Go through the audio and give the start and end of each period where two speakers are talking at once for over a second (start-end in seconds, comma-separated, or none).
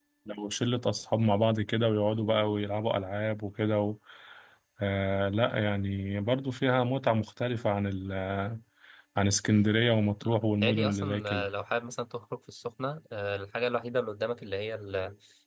10.2-11.5